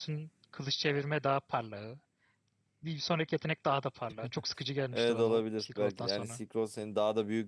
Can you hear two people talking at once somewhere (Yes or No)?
Yes